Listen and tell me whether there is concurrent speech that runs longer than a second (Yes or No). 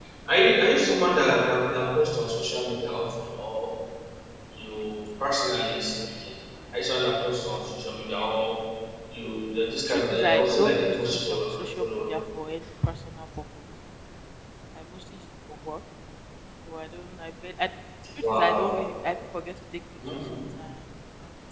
Yes